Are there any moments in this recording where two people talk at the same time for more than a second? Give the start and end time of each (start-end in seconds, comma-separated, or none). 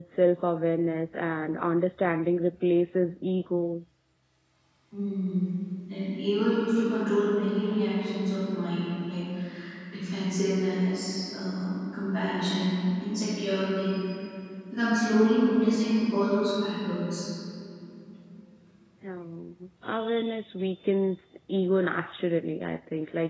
none